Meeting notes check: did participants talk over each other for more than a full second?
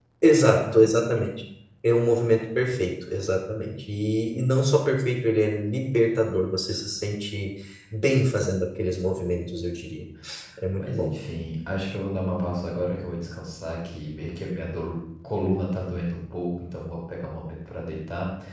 No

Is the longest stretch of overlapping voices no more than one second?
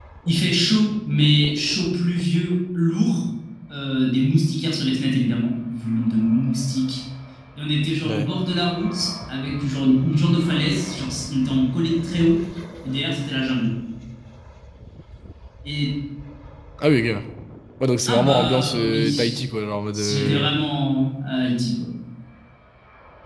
No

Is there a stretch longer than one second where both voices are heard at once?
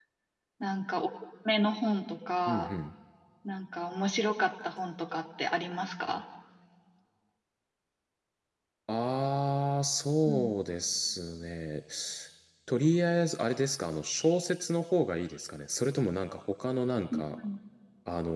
No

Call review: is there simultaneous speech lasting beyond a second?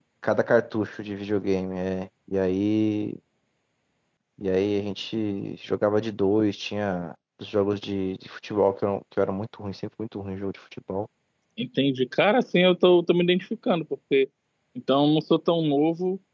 No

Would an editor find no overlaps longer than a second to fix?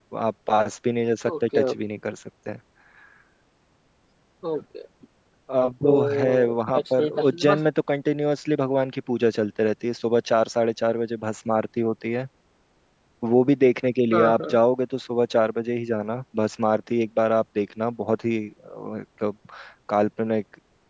No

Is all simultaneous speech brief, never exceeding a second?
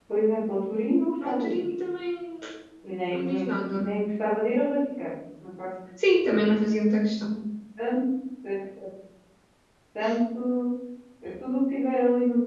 Yes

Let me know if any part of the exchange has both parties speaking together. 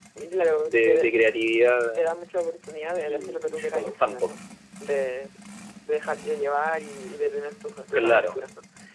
Yes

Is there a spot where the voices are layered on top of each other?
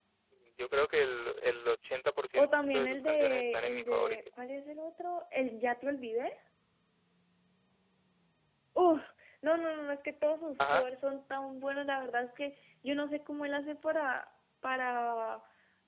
Yes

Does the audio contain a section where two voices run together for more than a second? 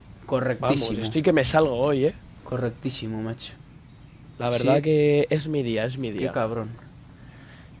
No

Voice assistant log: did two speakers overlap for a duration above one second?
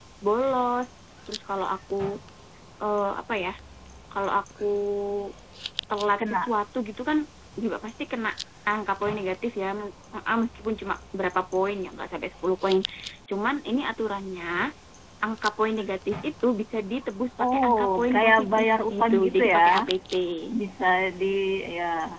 Yes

